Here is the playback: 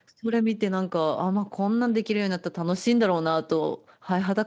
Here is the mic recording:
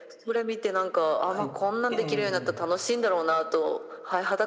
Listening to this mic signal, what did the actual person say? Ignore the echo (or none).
はい。ええ、